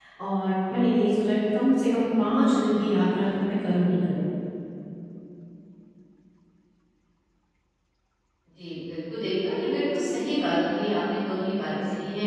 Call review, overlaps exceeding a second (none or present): none